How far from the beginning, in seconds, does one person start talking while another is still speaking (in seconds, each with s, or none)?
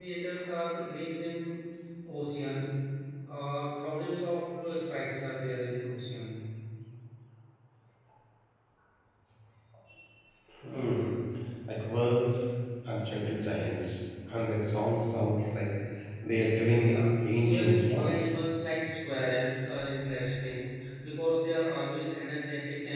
16.8 s